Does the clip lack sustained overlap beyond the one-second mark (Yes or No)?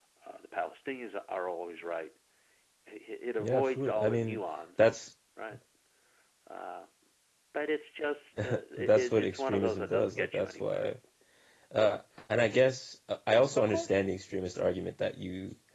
No